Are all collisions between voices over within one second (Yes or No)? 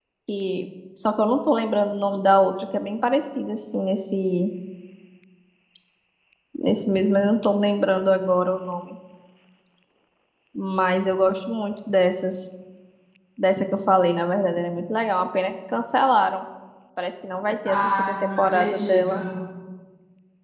No